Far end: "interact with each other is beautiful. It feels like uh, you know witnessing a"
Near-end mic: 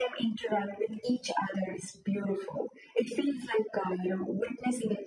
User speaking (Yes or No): No